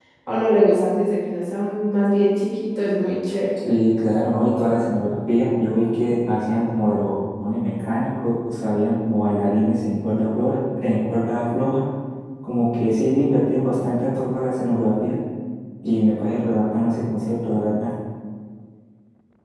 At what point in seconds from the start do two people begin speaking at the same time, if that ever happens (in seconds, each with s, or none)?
none